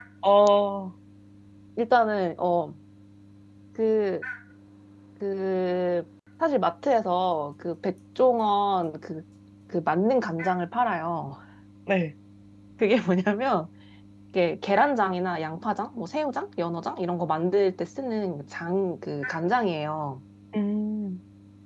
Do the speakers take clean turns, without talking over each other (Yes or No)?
Yes